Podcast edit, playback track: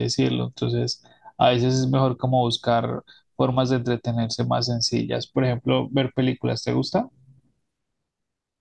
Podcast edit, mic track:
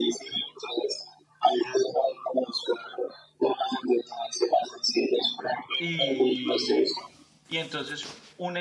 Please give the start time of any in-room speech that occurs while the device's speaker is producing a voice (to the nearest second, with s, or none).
6 s